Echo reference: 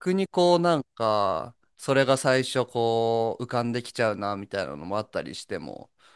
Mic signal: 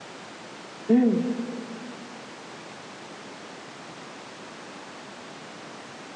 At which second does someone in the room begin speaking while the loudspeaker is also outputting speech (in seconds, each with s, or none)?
0.9 s